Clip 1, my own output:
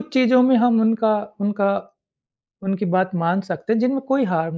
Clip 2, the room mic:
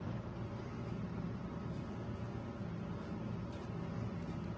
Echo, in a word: none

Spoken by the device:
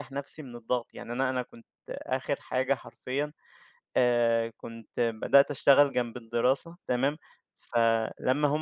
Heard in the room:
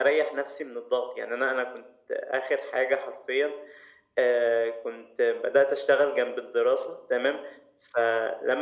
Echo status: present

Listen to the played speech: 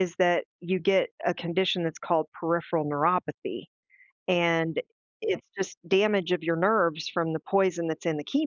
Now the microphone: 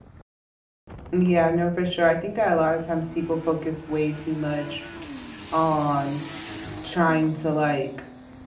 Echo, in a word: none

